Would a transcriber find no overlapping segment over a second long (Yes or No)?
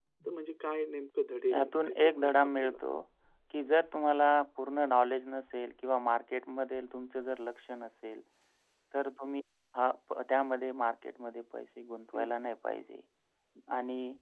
No